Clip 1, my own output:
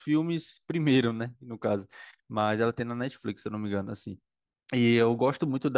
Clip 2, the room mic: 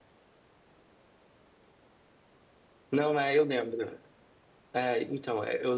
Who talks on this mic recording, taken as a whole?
user only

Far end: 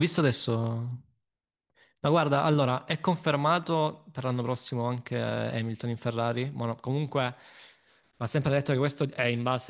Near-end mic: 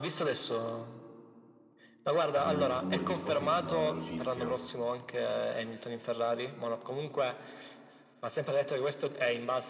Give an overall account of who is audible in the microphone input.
both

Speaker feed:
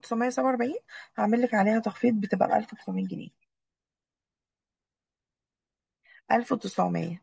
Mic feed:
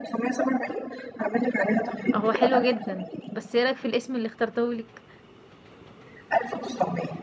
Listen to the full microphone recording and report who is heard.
both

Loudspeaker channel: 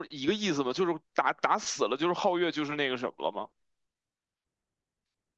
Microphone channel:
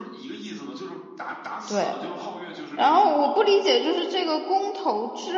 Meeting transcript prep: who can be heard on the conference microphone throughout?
both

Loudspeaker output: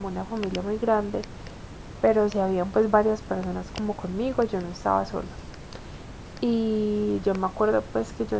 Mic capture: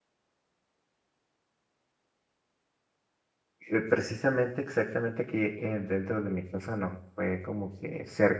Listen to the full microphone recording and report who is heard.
user only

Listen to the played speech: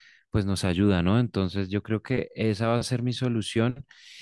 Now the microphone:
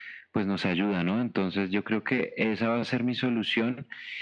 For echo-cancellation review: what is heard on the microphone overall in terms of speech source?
echo only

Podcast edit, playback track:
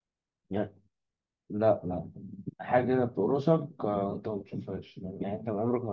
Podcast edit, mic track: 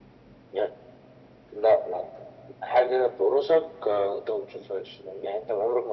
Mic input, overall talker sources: echo only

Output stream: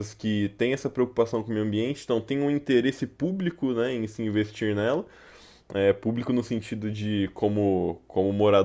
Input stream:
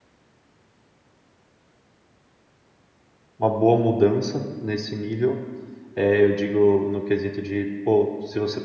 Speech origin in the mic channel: user only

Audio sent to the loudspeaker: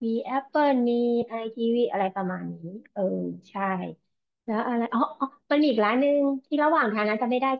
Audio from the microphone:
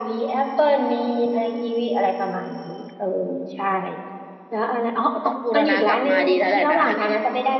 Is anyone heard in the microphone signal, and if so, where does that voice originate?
both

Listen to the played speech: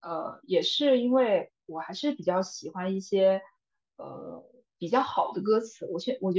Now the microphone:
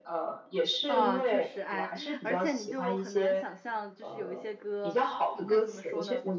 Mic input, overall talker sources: both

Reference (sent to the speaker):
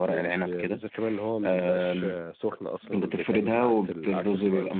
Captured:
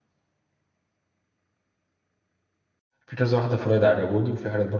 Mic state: user only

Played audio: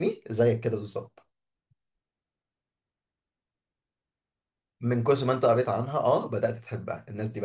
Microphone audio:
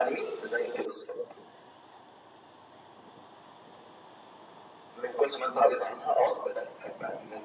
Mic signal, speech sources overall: echo only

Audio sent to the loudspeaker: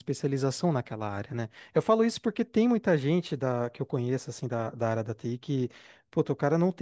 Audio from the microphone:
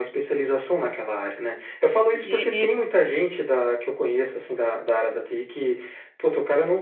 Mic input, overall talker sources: both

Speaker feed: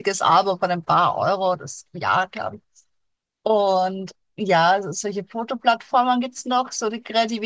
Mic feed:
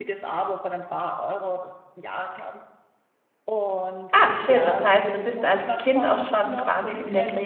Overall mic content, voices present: both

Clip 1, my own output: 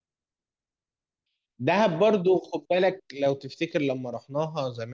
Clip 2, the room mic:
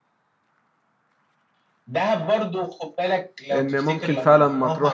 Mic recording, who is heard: both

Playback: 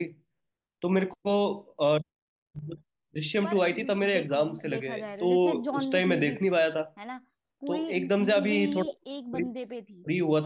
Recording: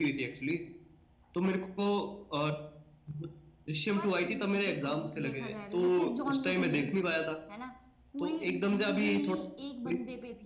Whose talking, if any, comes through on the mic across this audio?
echo only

